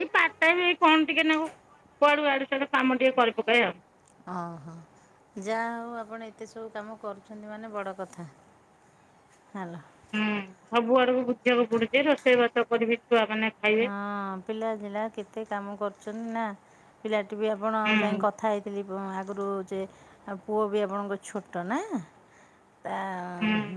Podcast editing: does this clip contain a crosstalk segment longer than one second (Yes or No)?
No